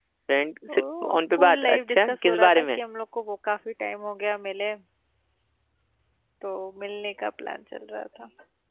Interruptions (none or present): present